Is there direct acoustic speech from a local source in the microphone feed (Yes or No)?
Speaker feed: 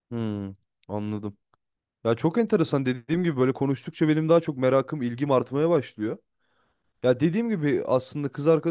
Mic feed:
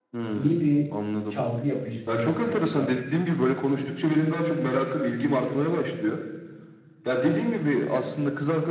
Yes